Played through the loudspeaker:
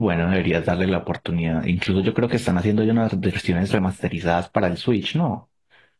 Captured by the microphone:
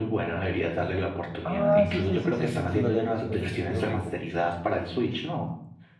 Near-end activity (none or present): present